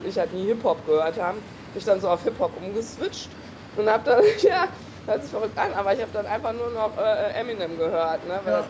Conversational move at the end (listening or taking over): listening